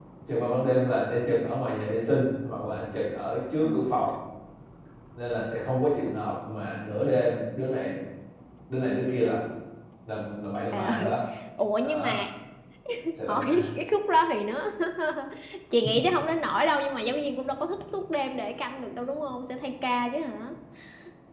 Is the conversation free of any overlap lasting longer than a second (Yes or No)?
Yes